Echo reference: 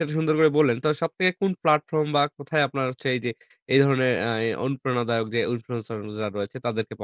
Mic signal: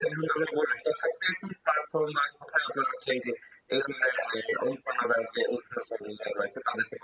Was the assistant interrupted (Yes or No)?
No